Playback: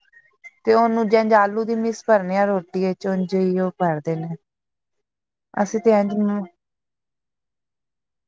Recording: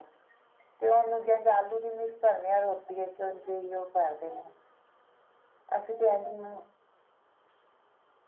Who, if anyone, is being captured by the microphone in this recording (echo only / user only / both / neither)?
echo only